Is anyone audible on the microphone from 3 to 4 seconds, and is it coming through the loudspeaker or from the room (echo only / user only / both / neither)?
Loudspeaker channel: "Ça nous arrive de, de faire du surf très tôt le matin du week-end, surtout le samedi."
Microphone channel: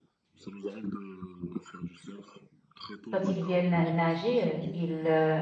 both